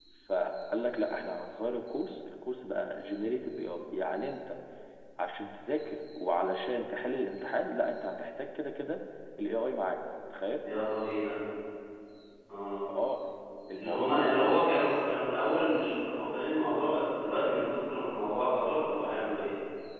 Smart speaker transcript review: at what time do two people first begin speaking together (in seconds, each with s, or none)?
13.7 s